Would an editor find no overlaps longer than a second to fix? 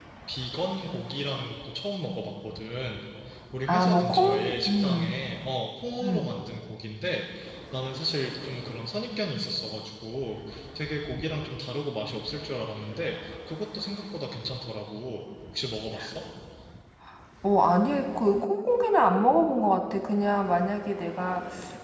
No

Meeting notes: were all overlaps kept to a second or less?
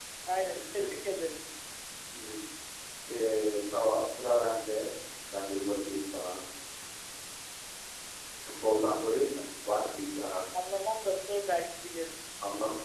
Yes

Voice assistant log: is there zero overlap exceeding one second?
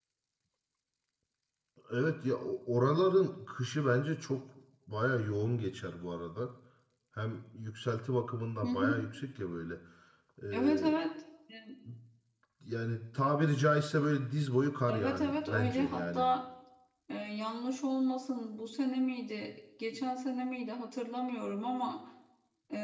No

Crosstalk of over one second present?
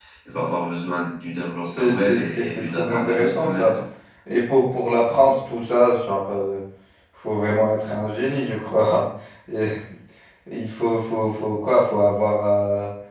Yes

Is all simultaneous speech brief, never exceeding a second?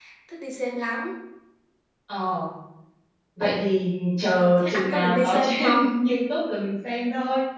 No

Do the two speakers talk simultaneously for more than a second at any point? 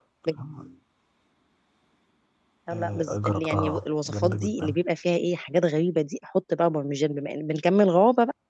Yes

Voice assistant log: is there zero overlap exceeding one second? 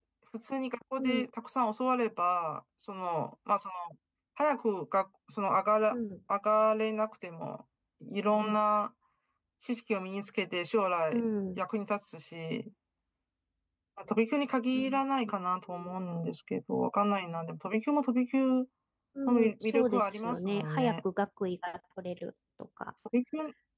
No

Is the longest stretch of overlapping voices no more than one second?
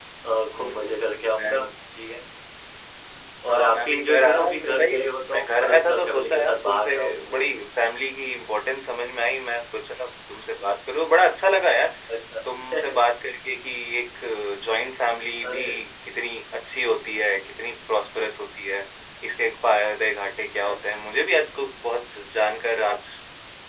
No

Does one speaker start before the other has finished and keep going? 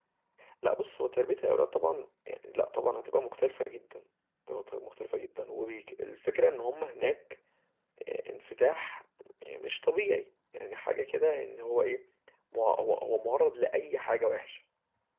No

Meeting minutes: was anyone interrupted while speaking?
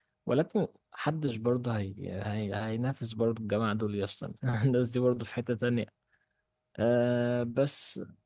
No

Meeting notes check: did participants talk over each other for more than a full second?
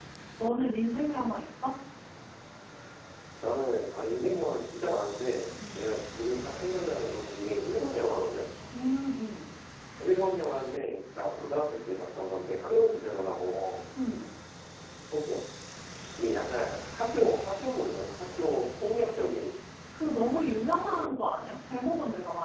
No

